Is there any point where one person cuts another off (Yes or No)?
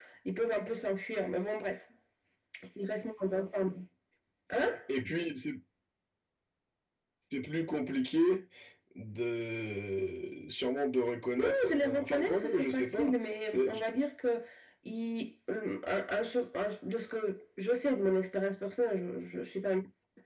Yes